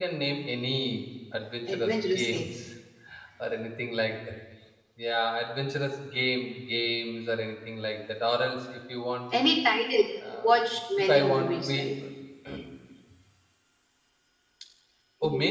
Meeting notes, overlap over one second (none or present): present